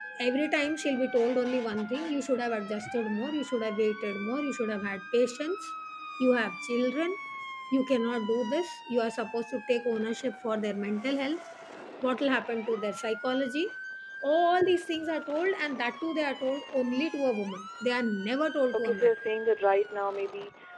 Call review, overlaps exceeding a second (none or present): none